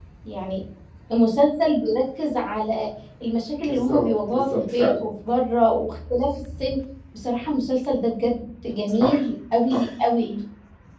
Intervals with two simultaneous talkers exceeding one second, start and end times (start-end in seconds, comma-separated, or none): 3.6-5.0